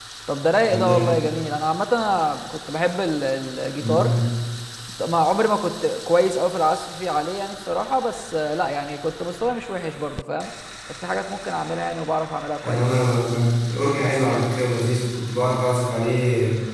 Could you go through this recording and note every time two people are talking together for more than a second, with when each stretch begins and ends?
none

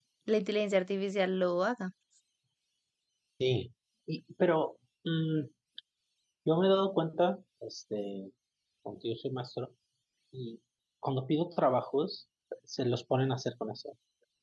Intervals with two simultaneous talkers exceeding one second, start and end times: none

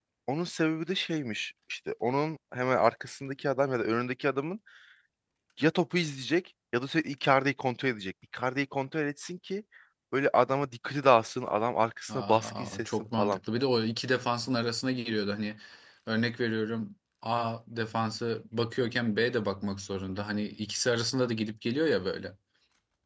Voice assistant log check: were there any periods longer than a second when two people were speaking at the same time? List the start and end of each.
12.1-13.4

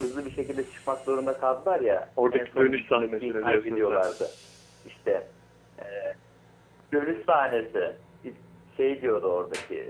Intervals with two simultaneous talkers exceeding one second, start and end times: 2.3-4.2

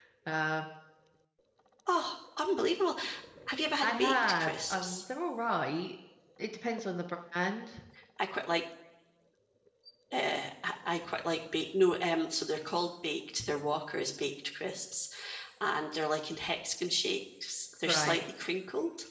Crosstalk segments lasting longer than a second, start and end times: 3.8-5.0

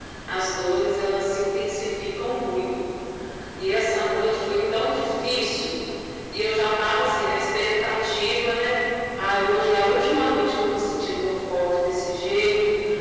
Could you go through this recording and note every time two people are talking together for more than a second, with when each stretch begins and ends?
none

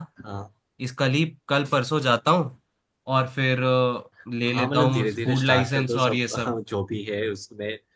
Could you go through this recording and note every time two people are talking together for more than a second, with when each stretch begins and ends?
4.5-6.5

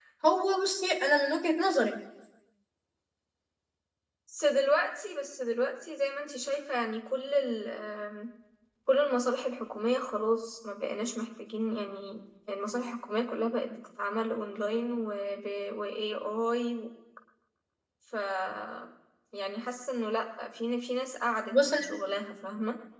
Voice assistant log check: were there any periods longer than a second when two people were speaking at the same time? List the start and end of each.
none

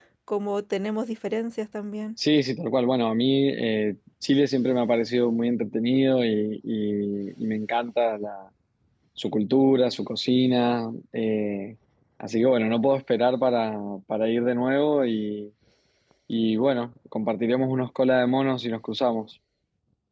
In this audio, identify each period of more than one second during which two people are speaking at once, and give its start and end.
none

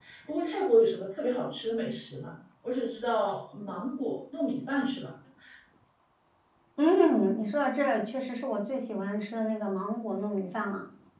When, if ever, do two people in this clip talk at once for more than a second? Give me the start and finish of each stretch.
none

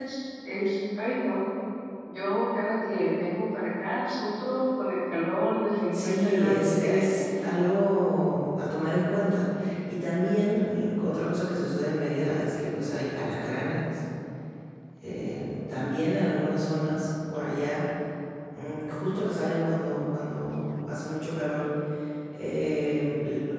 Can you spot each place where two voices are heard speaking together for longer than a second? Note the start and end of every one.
5.9-7.2

